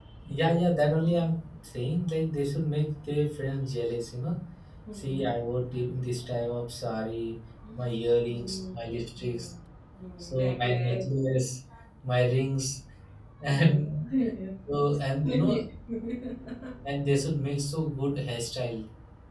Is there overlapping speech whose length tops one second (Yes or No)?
Yes